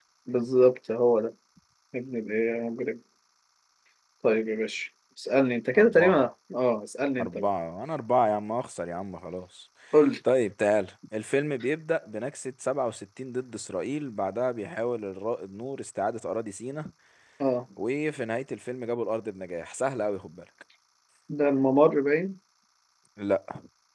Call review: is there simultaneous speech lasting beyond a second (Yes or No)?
No